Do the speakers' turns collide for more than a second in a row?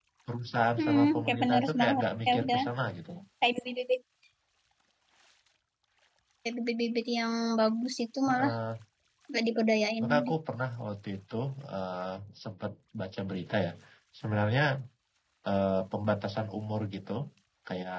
Yes, from 0.8 s

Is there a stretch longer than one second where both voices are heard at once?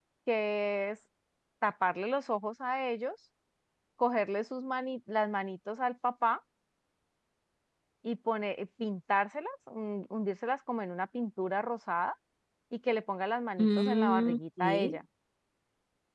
Yes, from 13.6 s

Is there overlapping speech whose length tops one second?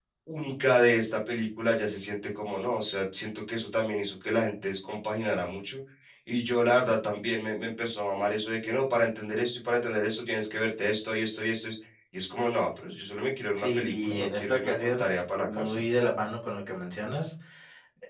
Yes, from 13.6 s

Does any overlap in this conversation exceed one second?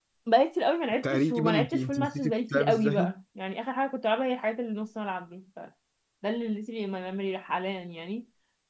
Yes, from 1.0 s

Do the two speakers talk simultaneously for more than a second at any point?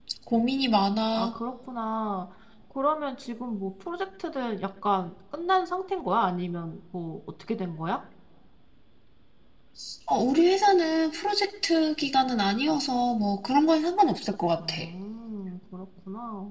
No

